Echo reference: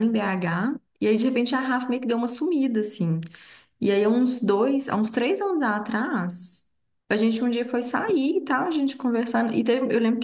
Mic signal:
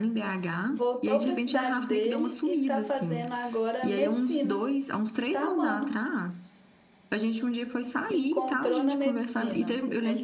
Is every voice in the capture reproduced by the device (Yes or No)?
No